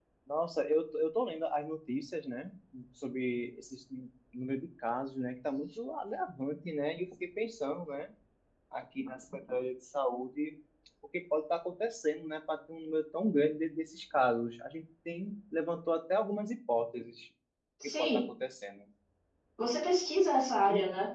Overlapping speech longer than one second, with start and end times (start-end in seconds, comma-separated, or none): none